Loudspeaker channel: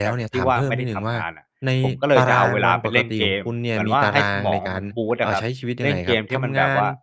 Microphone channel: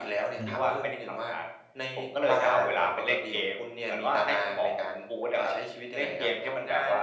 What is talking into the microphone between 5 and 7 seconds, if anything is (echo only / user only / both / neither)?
echo only